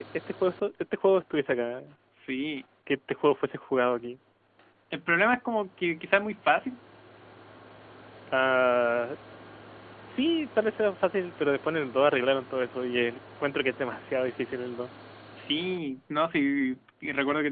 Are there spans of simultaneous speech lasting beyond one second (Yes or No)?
No